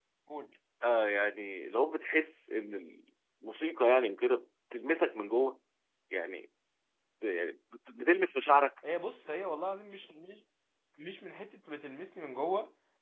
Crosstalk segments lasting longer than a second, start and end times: none

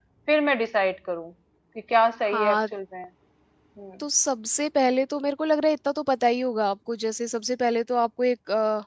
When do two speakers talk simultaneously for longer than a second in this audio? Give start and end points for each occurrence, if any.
none

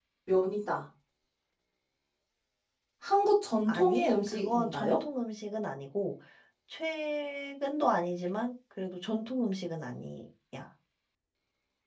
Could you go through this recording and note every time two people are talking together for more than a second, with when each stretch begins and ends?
3.7-5.0

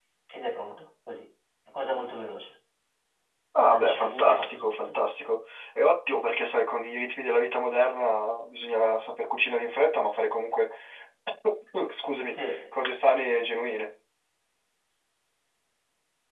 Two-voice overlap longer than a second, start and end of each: 3.6-4.9

